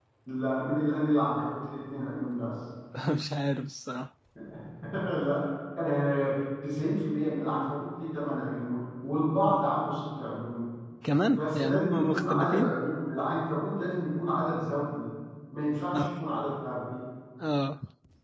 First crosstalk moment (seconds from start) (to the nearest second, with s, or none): 11 s